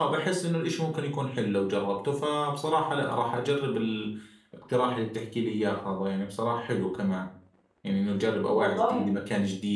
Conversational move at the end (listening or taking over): listening